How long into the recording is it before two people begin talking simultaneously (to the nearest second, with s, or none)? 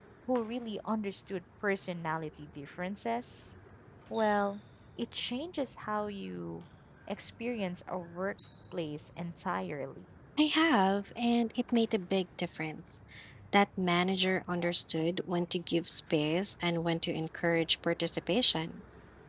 none